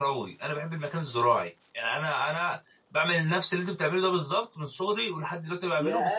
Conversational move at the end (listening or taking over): taking over